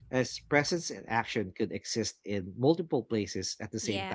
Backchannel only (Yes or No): No